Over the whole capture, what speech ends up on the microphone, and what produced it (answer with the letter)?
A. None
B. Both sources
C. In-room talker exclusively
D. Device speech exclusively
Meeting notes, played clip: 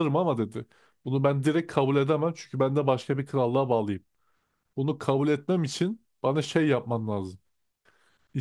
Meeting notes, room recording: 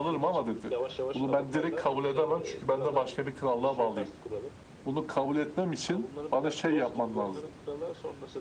B